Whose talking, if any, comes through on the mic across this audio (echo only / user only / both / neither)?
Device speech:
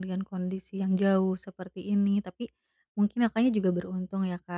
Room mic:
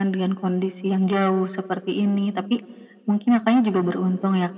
echo only